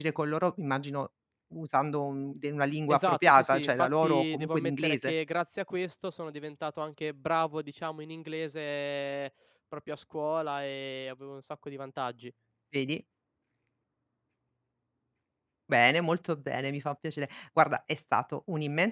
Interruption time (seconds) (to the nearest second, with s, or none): 3 s